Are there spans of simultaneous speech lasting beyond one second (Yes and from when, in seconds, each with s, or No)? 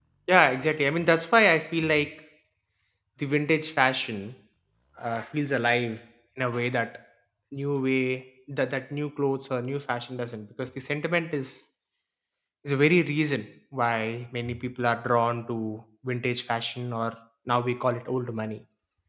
No